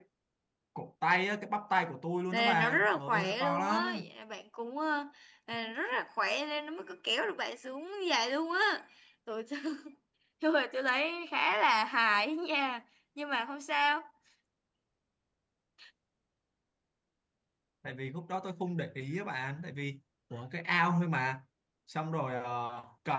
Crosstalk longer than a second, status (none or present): present